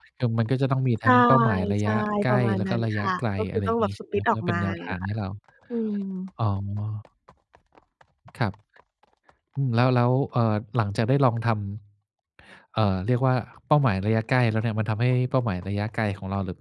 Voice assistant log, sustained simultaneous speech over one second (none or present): present